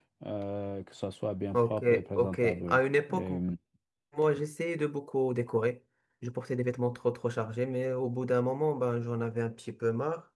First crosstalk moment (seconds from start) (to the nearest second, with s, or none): 2 s